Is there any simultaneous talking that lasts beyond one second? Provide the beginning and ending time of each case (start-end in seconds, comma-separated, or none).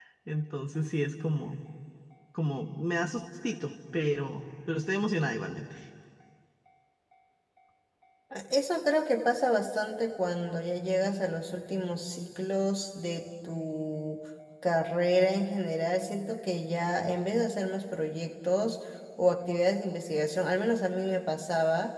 none